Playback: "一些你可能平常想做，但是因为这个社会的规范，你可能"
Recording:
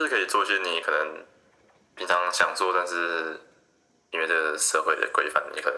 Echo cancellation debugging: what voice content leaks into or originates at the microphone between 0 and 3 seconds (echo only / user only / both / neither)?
echo only